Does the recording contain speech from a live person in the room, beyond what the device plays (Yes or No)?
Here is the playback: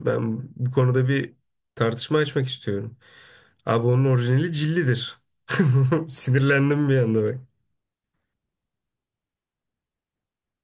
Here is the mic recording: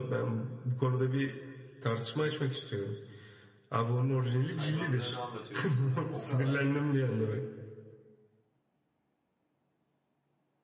Yes